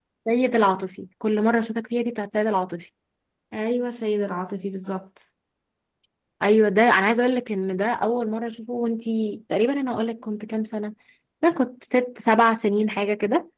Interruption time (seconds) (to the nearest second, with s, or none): none